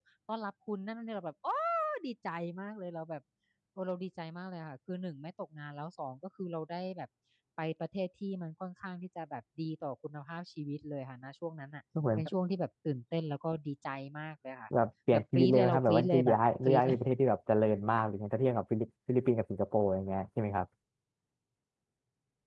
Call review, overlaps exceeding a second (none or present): present